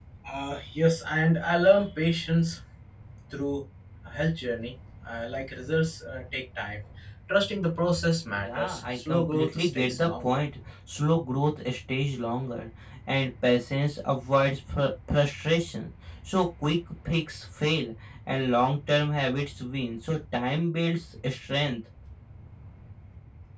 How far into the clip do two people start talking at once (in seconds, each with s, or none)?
8.3 s